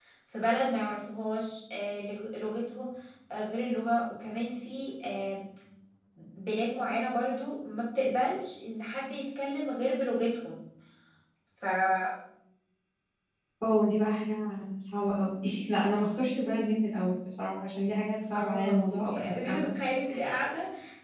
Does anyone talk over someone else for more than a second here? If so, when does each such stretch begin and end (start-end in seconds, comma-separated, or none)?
18.4-19.7